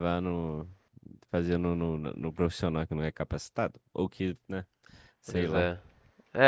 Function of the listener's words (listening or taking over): taking over